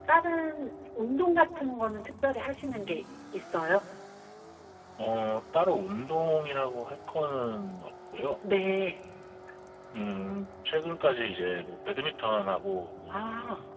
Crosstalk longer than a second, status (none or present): none